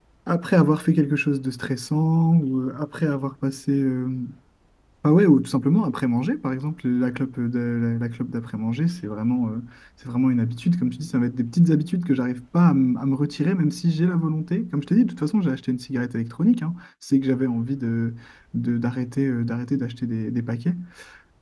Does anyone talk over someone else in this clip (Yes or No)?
No